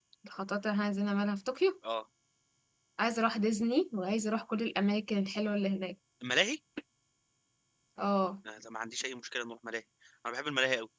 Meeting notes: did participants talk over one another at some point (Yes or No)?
No